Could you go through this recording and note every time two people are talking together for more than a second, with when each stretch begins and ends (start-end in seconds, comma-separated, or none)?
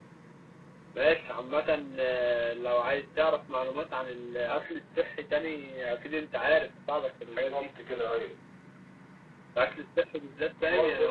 none